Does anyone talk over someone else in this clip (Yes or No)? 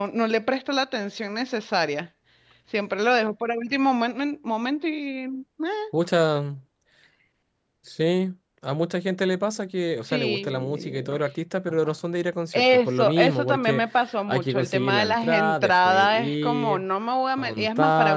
Yes